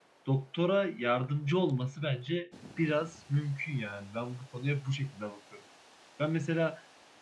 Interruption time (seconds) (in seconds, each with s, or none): none